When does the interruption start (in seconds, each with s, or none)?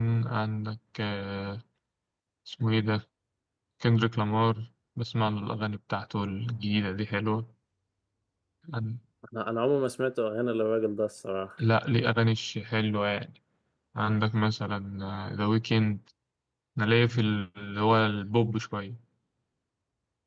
none